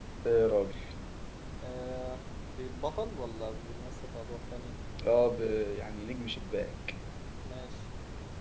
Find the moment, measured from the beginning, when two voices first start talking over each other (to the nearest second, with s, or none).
none